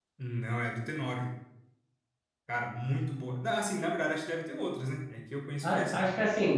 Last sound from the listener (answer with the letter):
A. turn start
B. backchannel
A